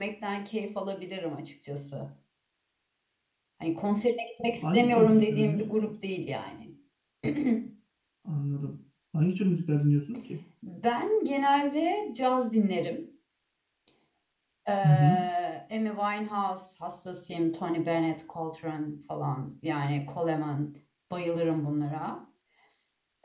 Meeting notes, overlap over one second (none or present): present